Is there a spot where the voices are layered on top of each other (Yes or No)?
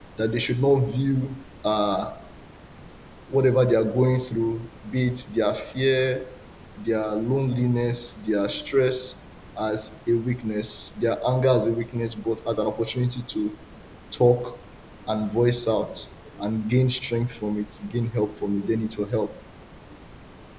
No